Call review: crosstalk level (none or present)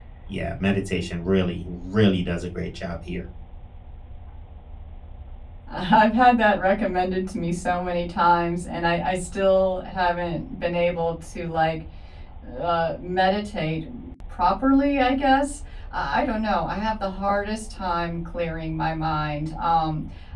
none